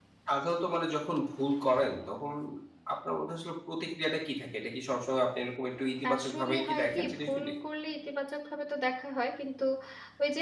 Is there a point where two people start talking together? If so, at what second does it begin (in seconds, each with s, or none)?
6.0 s